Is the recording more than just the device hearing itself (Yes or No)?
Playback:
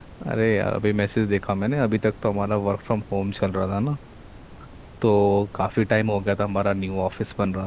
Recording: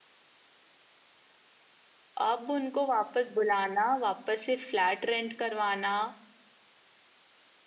Yes